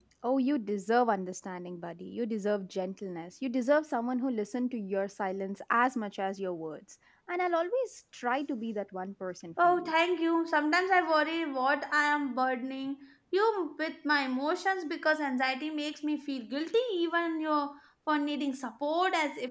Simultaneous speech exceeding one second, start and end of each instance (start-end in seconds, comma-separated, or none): none